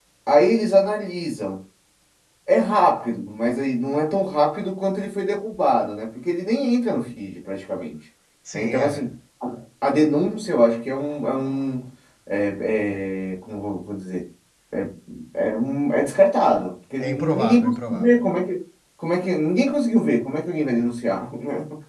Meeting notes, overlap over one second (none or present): present